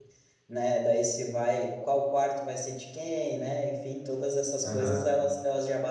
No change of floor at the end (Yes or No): Yes